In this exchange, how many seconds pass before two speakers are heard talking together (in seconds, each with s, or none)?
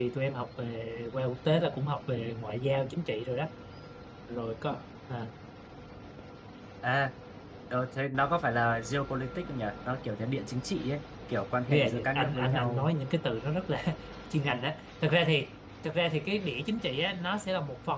11.7 s